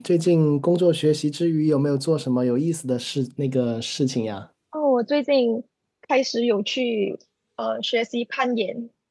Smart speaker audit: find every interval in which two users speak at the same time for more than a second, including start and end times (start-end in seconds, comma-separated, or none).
none